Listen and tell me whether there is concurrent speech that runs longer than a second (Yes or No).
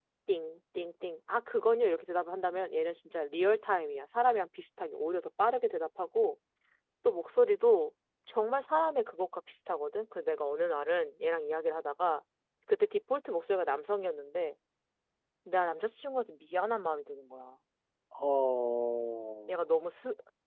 No